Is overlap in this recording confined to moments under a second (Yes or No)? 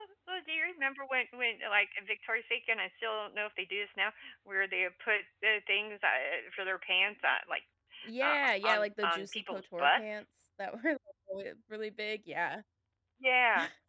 No